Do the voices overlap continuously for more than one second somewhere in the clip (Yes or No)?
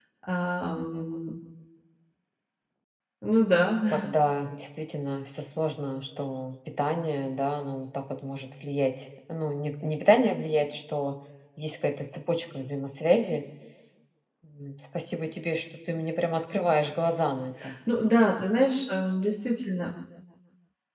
No